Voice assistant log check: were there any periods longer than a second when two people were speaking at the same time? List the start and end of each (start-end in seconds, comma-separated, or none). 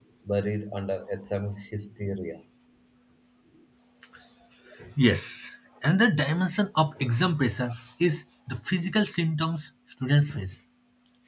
none